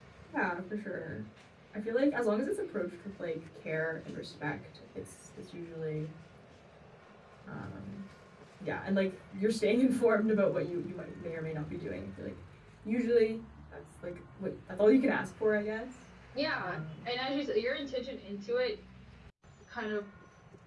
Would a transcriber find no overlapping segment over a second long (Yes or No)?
Yes